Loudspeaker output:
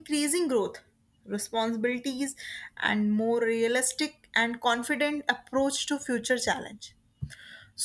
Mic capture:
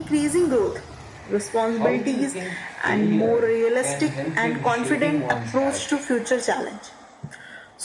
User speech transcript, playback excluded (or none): how do you think failure can help in shaping one's character?